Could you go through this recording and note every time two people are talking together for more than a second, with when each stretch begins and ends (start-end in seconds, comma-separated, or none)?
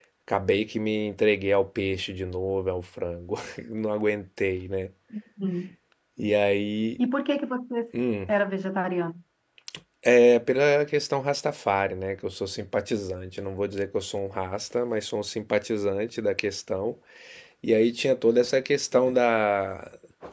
none